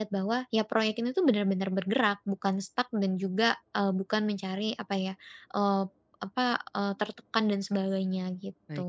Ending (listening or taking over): taking over